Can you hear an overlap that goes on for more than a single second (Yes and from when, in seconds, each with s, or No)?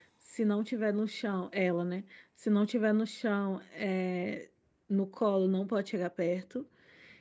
No